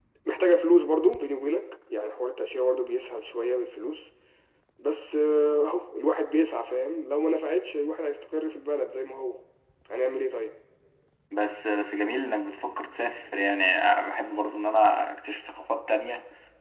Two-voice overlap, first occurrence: none

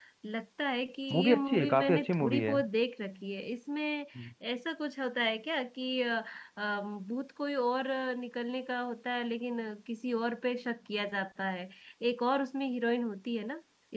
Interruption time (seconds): 1 s

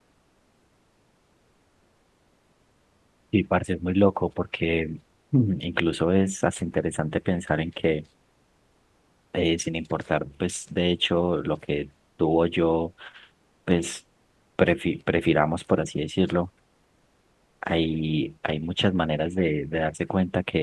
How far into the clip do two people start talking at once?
none

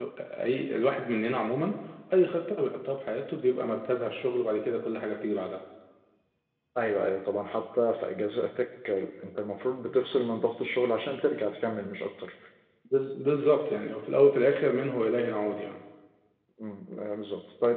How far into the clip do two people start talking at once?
none

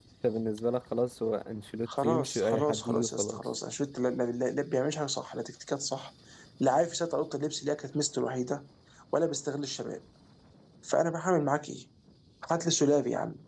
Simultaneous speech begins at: 2 s

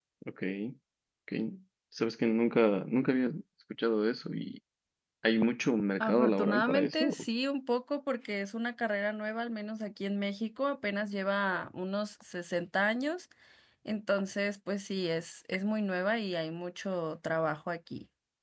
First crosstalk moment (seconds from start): 6 s

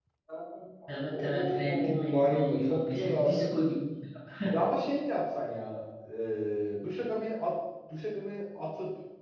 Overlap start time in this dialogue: 1 s

